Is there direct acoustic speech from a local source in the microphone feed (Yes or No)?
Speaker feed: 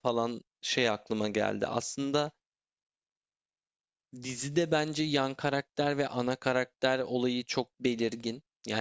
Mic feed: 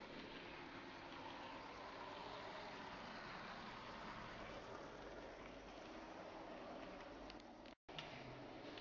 No